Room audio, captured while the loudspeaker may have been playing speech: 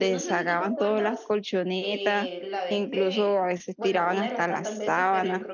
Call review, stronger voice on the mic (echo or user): user